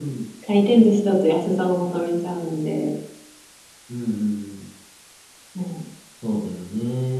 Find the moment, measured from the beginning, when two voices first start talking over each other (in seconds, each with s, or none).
none